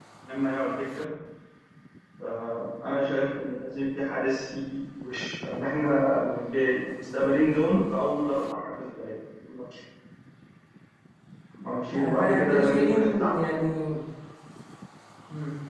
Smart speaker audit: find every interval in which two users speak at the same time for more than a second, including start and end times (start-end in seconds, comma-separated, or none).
11.9-13.4